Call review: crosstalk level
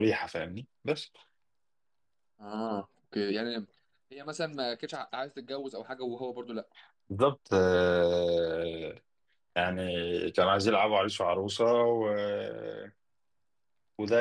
none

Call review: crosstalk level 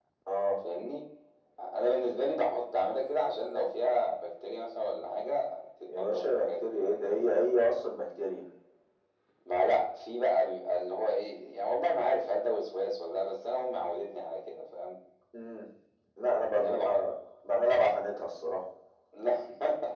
present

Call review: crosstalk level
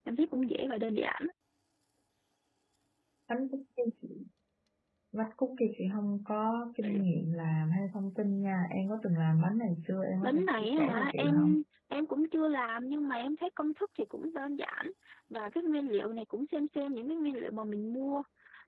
present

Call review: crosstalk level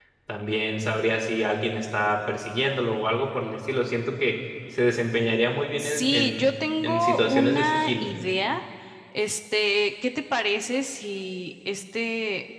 present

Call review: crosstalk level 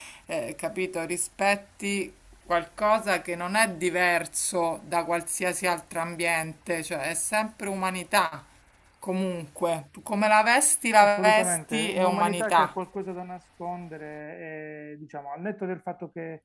present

